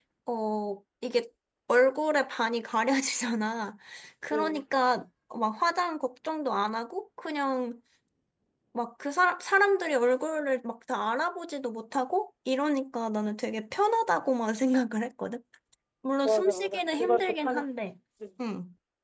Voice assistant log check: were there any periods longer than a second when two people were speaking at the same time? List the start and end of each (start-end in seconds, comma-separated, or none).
16.2-17.7